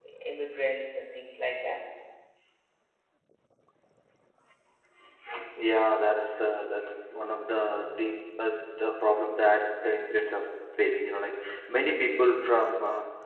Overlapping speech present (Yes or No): No